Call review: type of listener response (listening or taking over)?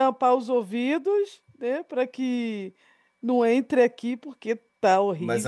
taking over